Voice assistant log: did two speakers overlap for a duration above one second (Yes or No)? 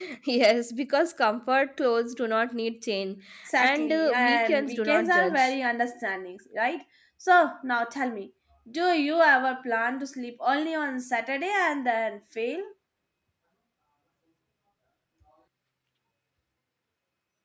Yes